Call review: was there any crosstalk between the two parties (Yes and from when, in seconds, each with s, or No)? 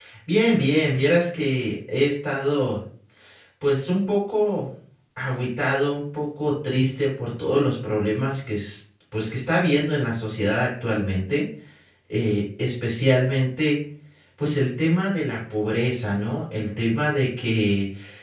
No